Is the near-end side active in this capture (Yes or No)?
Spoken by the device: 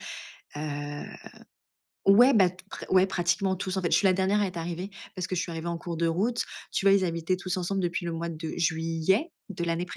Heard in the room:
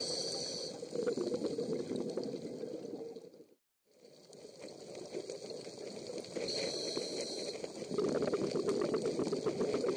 No